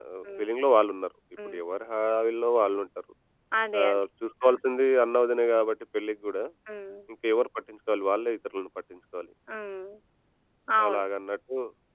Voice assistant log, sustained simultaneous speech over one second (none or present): none